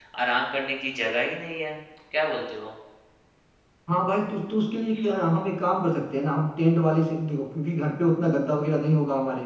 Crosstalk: none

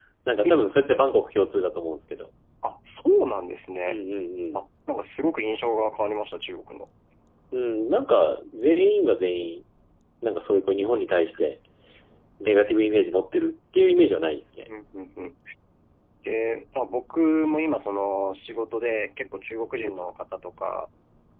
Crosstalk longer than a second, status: none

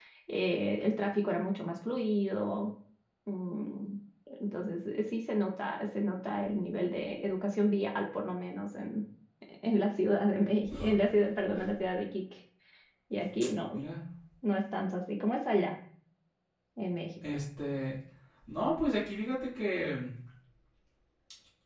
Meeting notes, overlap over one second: none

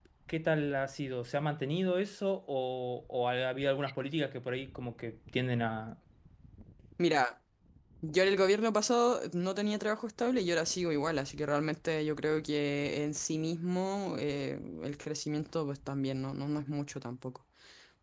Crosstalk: none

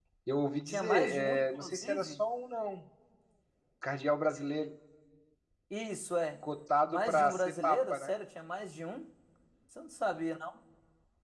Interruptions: present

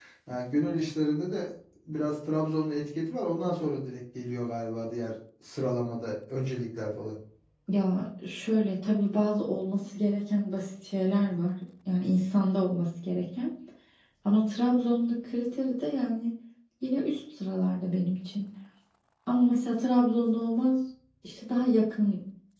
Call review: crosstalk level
none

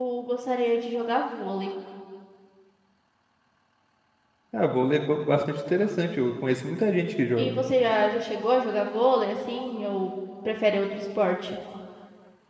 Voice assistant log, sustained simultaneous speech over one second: none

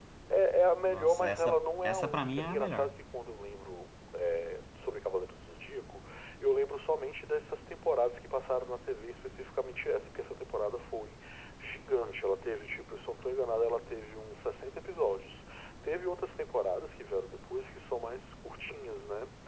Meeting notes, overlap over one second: present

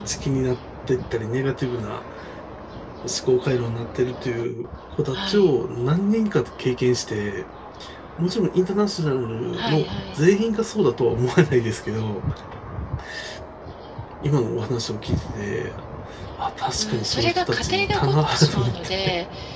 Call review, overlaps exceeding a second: present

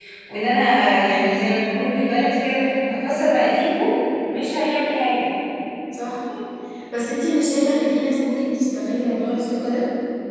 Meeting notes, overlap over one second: none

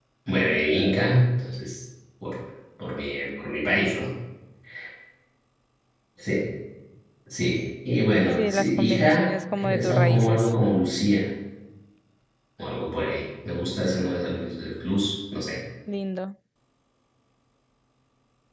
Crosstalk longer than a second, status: present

